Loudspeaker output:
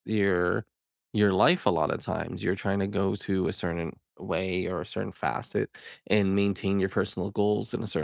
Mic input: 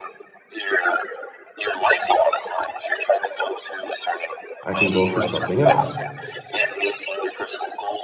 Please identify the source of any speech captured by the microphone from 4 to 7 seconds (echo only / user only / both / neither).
both